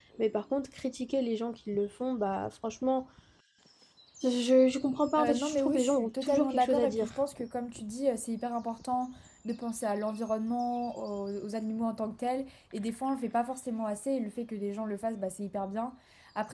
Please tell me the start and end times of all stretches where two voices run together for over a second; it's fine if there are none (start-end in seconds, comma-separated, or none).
5.2-7.2